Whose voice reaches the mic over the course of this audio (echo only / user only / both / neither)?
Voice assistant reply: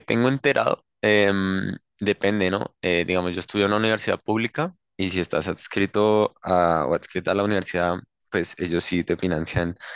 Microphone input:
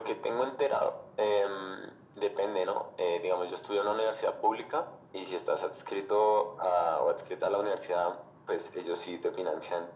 echo only